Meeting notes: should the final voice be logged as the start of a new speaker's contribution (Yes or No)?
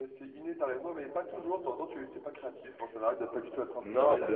Yes